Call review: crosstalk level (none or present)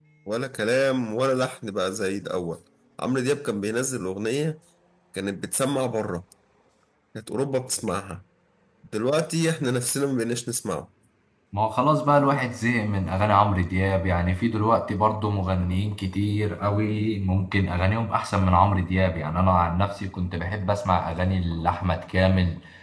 none